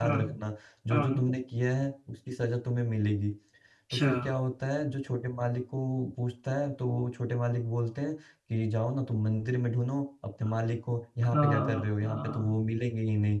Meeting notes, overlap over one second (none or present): present